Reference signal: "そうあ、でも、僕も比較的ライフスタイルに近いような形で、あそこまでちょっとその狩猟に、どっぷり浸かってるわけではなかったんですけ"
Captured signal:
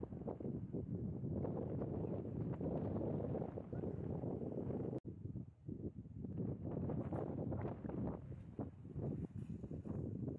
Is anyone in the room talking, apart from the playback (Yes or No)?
No